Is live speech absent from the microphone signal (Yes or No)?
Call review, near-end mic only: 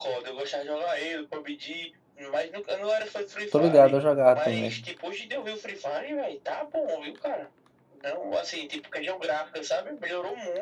No